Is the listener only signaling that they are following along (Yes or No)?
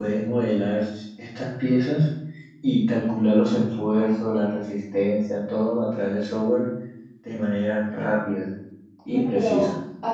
No